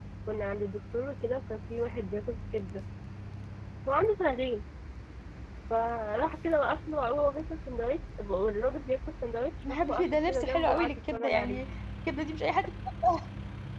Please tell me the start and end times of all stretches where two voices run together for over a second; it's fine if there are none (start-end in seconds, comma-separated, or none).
9.7-11.6